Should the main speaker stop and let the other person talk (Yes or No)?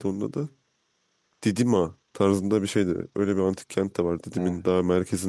No